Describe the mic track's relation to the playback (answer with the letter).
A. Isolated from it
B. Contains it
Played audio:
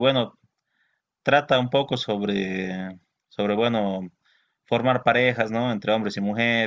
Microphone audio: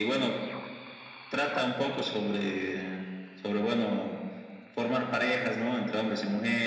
B